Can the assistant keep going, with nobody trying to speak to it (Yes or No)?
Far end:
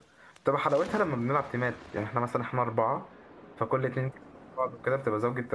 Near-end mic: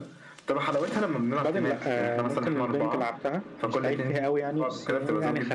No